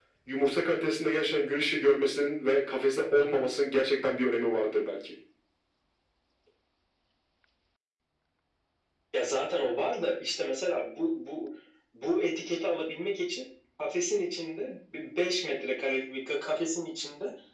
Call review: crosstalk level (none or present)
none